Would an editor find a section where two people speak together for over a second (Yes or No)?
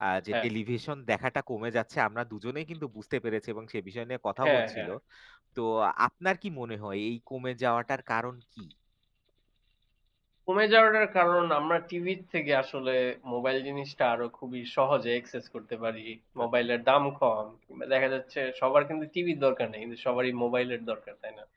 No